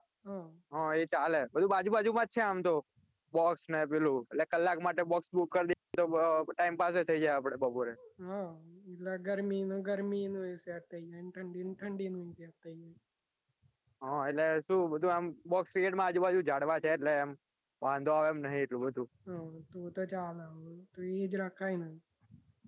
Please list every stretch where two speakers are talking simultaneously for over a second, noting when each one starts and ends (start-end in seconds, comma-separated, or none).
none